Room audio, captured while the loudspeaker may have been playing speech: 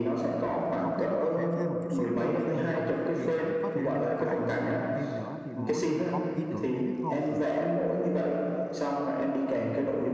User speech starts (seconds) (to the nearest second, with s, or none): 1 s